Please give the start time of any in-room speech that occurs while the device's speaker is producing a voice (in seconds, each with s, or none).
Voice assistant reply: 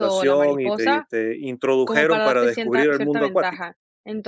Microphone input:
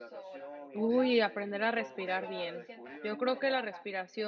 0.7 s